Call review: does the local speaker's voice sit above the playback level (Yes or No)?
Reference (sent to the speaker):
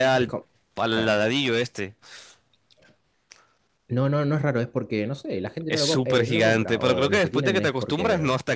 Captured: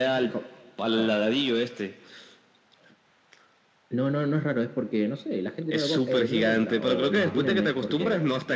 No